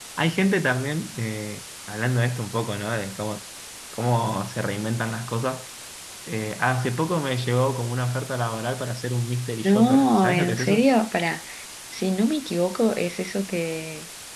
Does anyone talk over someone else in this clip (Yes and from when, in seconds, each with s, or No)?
Yes, from 9.6 s